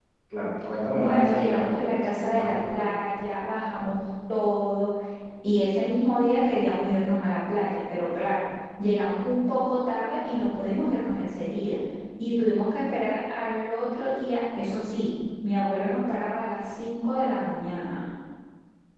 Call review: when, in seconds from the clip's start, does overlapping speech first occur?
1.0 s

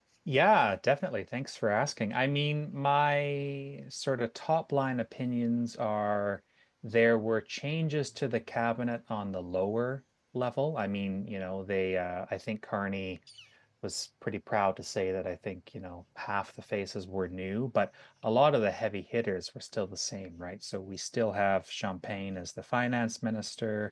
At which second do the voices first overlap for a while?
none

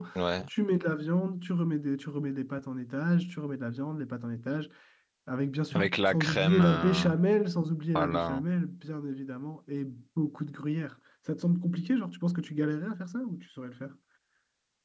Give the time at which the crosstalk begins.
5.7 s

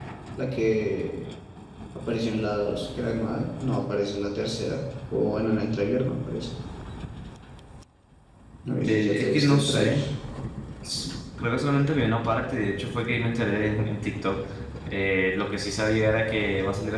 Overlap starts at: 8.7 s

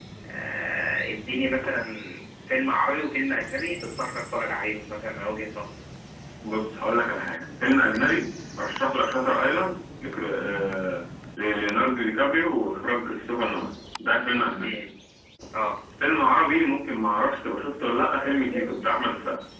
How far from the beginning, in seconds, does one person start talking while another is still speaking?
none

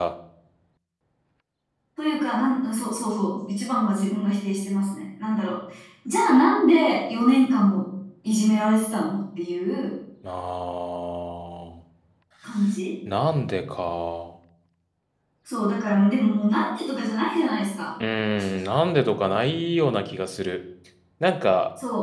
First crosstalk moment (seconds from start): none

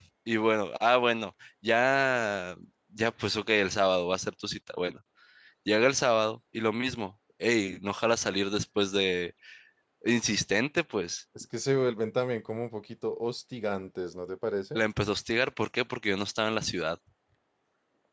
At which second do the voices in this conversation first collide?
none

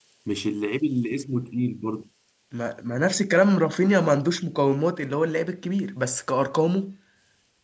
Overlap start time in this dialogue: none

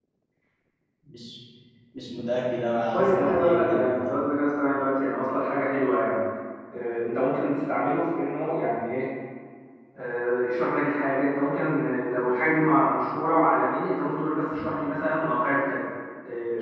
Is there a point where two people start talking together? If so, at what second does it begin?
2.9 s

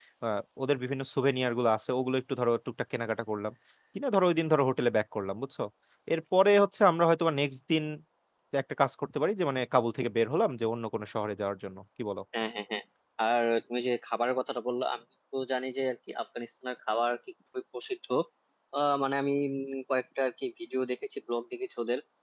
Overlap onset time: none

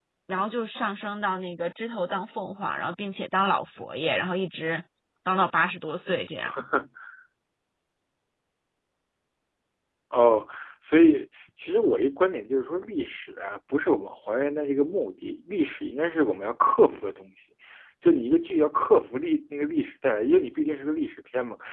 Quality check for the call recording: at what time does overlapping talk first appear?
none

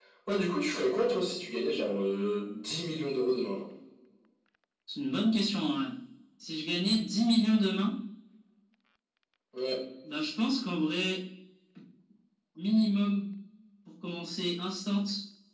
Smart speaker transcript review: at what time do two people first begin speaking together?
none

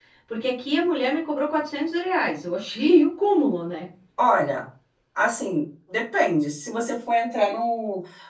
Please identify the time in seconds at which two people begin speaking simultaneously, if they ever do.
none

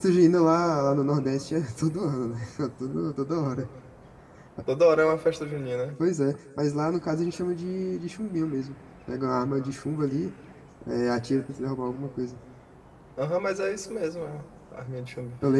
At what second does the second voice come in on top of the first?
none

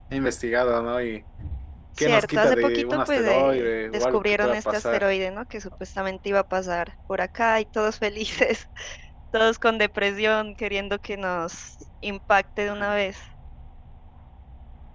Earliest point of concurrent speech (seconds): 2.0 s

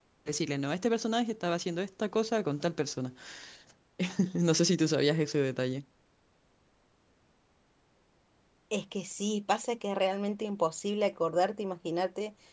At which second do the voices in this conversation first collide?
none

